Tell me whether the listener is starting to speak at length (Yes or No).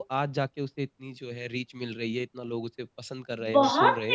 Yes